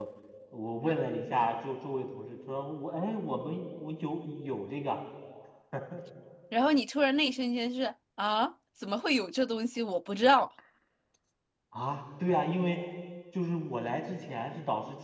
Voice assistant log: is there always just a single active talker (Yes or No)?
Yes